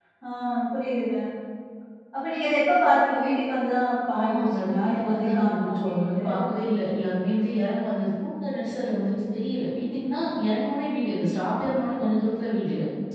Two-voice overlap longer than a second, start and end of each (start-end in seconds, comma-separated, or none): 4.2-6.2